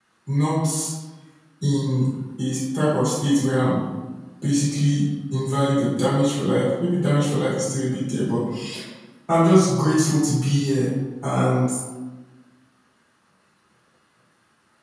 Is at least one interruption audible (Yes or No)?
No